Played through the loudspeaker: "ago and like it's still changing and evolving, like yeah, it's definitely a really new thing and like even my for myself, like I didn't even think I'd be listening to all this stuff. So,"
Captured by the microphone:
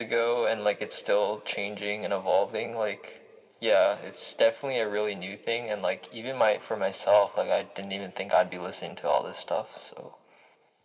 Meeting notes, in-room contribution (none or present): none